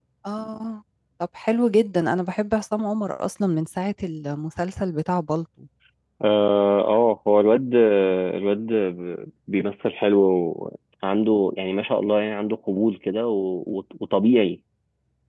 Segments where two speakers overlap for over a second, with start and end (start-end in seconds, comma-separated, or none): none